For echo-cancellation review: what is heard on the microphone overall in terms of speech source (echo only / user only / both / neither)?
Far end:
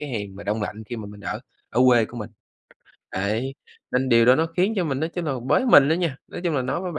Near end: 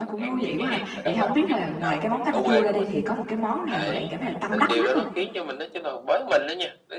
both